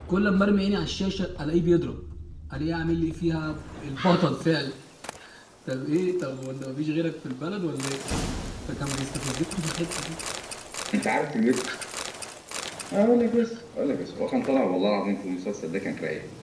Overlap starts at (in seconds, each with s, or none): none